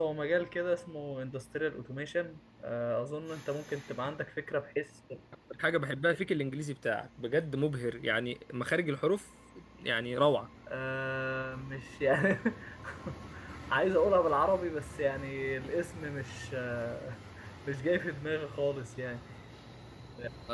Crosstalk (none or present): none